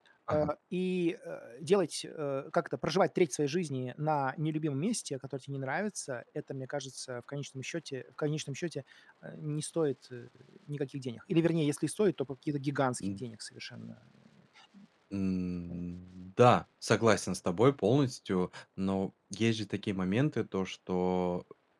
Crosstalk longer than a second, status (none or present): none